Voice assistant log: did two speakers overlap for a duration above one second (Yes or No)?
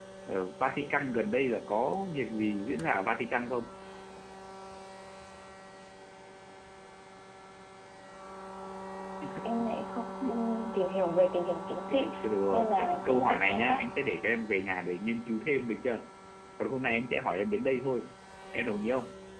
Yes